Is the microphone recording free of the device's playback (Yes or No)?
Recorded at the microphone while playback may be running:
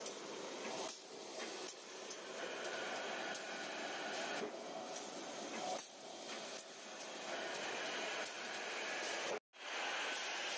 Yes